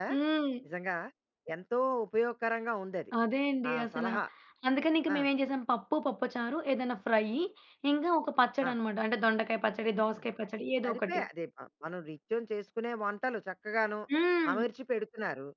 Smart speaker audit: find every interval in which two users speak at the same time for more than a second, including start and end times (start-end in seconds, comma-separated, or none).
none